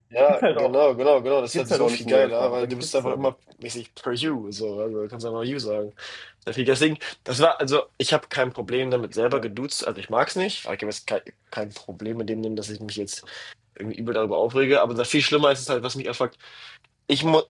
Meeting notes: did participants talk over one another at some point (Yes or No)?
Yes